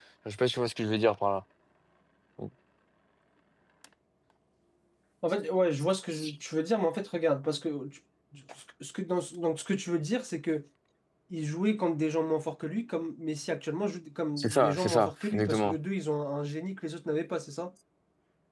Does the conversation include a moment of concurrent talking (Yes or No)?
Yes